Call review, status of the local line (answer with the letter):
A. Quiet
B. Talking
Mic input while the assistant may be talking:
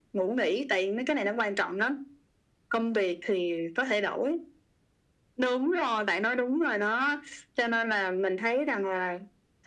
A